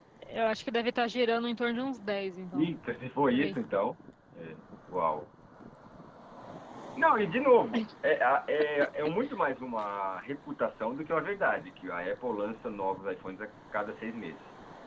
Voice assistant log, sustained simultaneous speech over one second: none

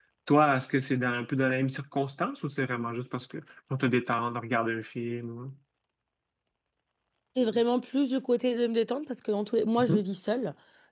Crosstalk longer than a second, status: none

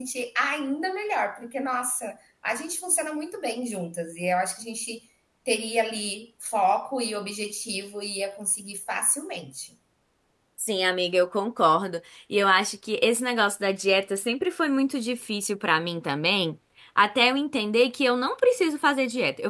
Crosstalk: none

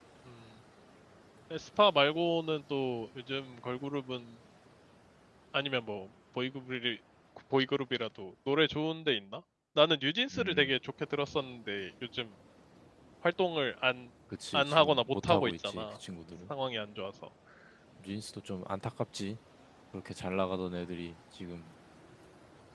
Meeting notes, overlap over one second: present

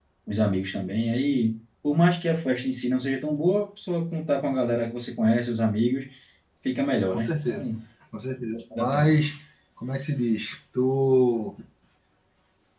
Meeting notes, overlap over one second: none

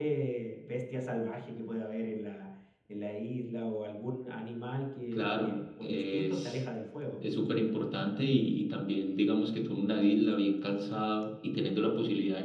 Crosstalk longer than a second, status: present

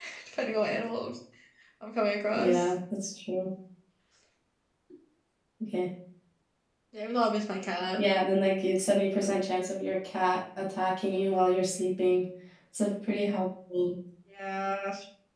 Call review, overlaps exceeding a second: none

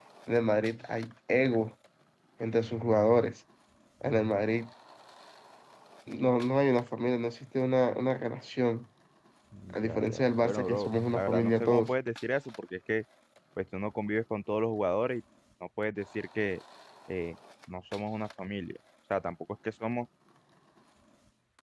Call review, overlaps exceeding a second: present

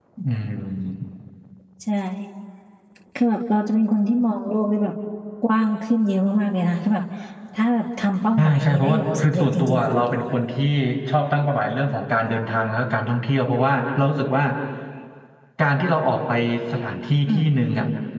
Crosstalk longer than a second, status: present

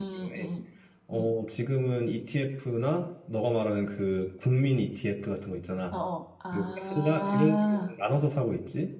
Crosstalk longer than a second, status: present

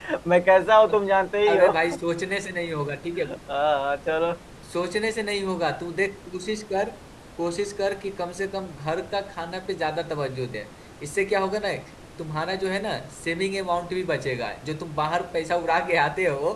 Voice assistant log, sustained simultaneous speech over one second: none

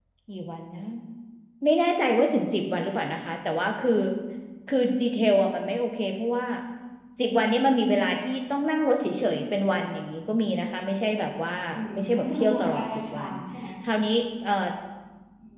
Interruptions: present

